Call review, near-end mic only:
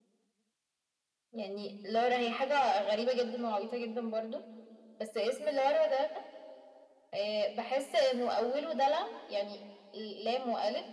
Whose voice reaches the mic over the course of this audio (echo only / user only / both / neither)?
echo only